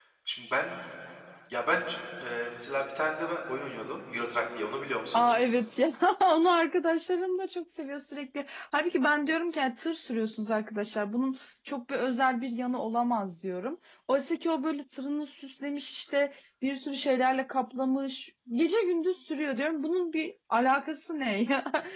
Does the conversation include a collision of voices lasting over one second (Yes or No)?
No